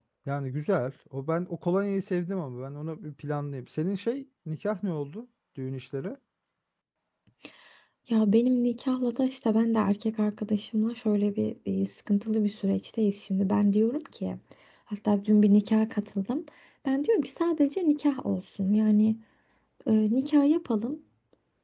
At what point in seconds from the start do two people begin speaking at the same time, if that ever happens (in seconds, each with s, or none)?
none